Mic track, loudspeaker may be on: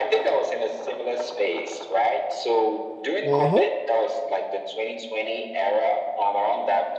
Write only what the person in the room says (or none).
Mm-hmm.